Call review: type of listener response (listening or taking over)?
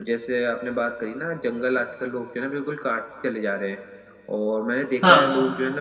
listening